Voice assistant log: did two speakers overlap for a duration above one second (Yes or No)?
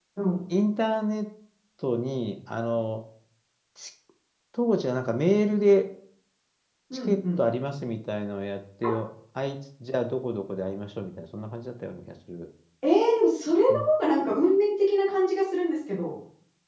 No